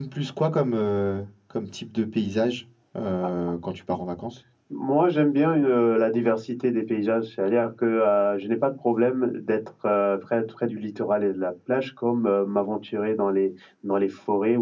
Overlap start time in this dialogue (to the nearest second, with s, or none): none